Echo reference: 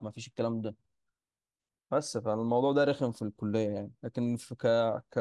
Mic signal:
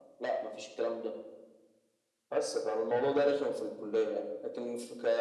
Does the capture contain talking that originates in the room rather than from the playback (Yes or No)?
No